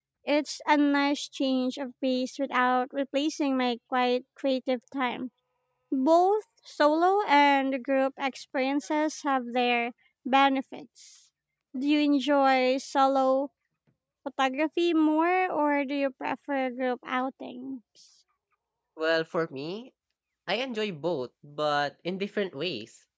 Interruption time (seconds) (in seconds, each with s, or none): none